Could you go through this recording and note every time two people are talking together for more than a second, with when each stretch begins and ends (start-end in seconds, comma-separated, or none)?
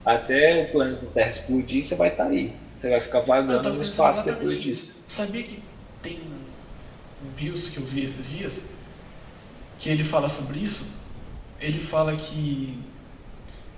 3.5-4.8